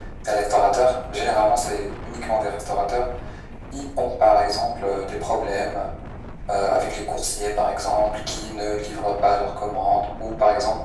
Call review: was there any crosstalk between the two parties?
No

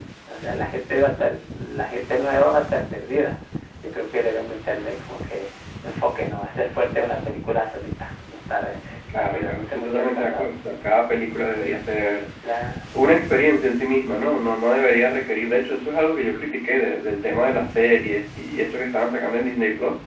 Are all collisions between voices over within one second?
No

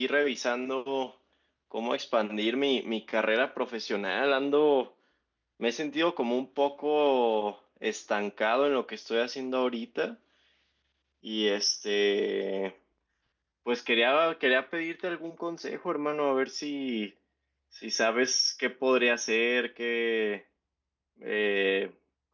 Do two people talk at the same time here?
No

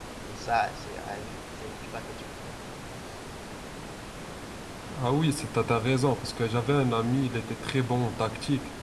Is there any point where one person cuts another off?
No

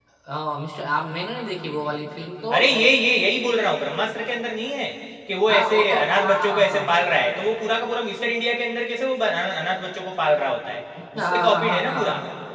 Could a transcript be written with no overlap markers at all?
No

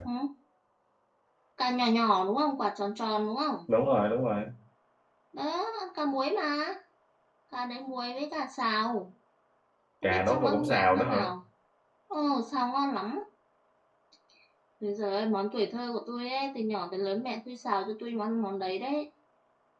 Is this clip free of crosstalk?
No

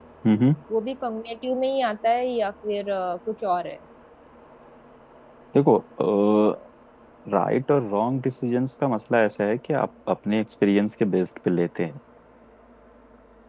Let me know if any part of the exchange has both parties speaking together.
No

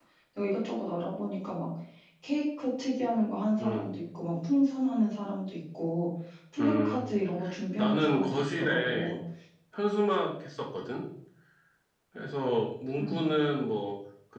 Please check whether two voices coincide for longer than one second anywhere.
Yes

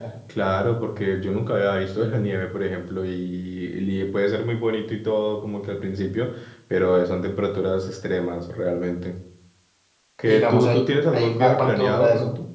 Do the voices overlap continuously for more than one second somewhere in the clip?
Yes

